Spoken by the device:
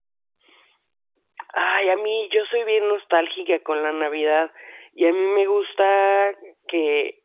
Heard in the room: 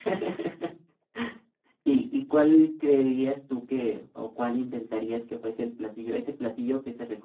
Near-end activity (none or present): present